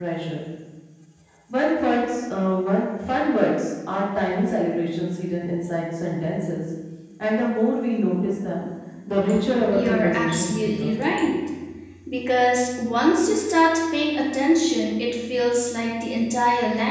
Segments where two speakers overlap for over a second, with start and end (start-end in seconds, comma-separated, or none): 9.7-11.0